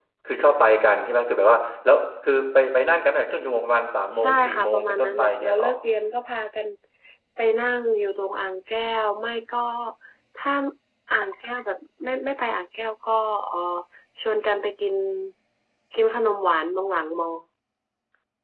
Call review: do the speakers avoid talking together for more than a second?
No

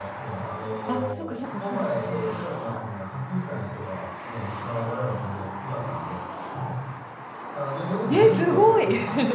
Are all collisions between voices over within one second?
No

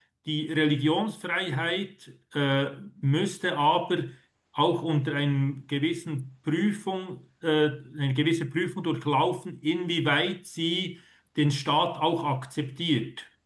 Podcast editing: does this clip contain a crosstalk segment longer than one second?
No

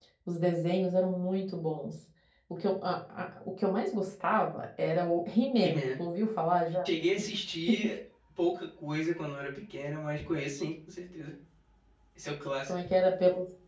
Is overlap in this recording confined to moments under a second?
Yes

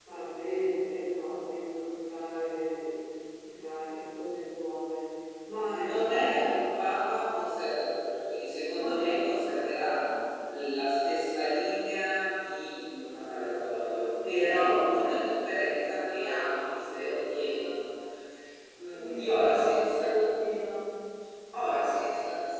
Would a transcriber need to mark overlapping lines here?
Yes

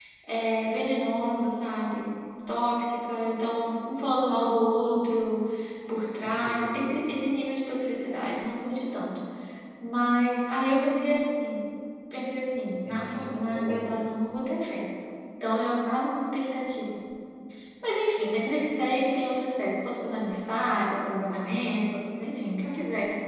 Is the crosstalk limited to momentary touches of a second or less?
No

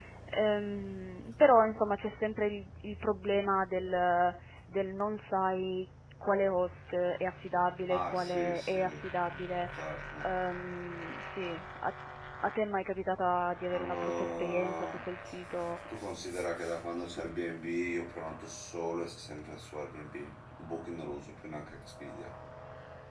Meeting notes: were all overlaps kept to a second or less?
No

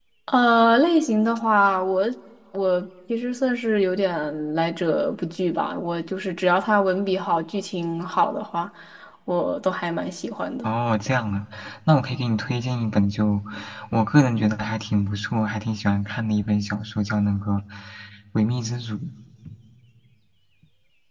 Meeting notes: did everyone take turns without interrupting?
Yes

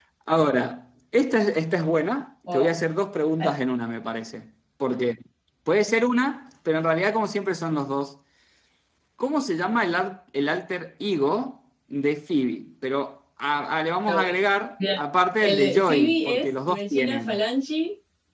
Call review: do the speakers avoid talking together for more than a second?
No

